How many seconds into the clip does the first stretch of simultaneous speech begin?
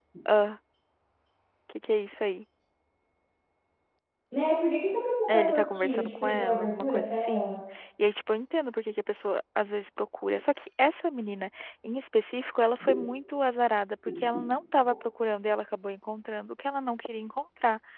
5.3 s

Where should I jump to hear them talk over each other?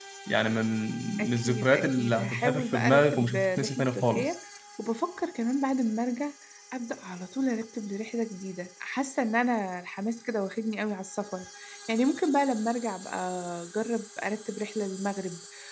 1.2 s

